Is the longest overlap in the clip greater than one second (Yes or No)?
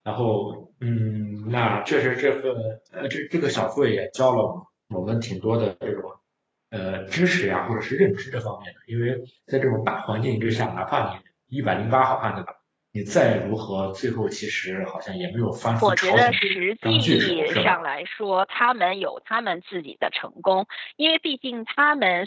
Yes